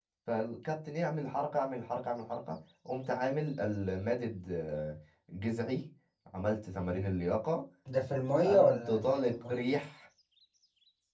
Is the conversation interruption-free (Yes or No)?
No